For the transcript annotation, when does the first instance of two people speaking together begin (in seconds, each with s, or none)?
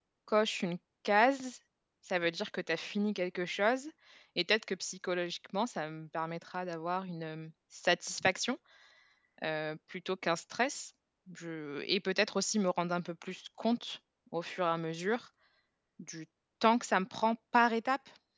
none